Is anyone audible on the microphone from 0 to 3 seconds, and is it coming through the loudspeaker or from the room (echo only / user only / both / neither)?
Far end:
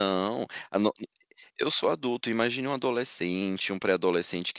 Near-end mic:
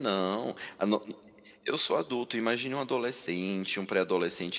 echo only